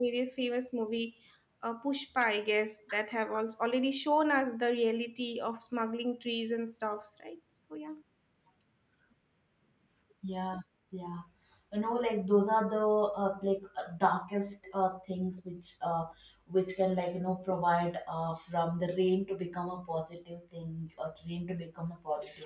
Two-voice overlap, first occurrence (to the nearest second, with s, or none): none